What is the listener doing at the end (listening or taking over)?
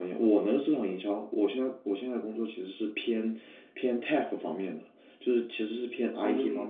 listening